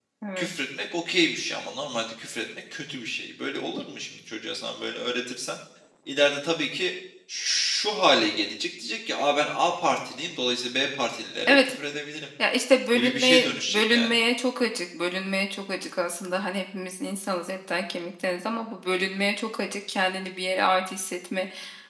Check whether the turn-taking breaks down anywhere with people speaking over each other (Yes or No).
Yes